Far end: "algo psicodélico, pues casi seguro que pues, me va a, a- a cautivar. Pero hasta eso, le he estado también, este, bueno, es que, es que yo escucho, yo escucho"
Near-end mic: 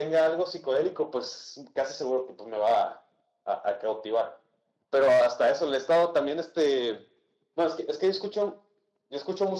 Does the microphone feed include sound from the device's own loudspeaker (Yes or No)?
Yes